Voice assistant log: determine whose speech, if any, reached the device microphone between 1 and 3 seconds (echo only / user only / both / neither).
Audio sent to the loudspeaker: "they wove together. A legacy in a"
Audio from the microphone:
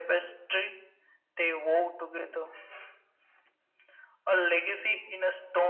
echo only